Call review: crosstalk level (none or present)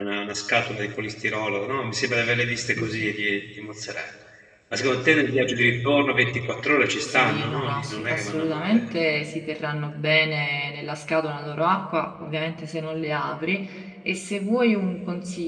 present